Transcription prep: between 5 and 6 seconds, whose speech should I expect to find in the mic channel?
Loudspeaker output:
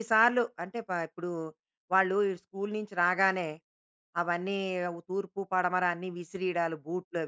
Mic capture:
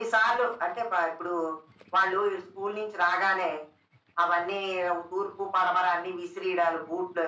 echo only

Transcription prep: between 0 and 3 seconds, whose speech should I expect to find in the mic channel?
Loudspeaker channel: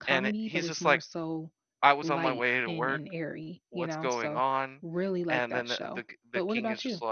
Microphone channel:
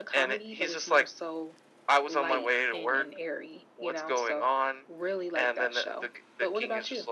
echo only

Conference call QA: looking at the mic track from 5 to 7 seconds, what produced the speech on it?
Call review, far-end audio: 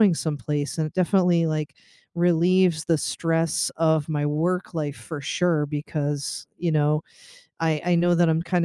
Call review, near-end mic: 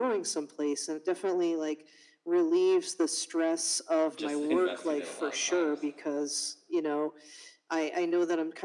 both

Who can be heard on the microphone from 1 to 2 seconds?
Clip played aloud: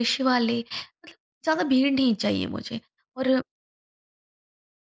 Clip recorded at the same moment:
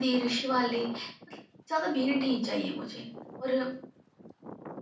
echo only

